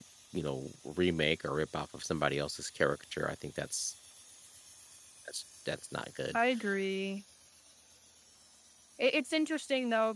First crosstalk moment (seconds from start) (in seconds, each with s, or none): none